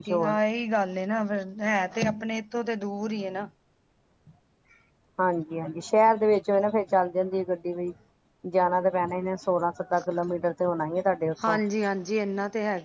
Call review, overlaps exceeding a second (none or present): none